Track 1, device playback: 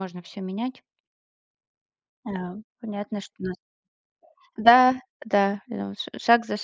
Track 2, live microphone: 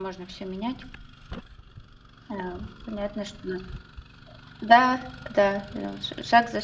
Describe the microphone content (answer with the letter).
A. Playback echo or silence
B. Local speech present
A